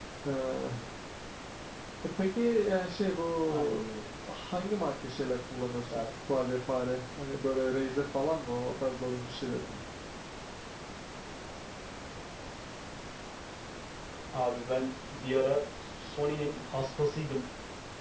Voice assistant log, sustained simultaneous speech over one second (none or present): none